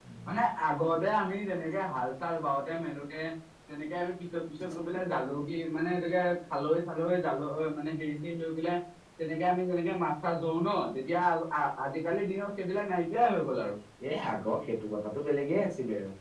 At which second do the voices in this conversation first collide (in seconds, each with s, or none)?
none